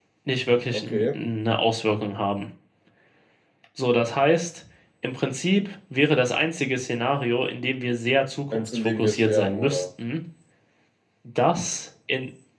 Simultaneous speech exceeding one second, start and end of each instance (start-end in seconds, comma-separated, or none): 8.5-9.8